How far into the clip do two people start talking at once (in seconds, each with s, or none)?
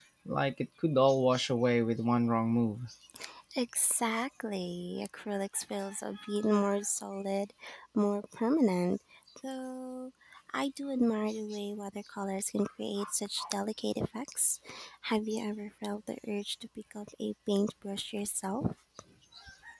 none